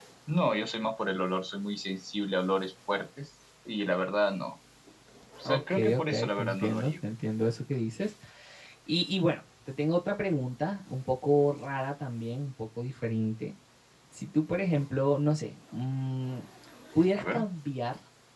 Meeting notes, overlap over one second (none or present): present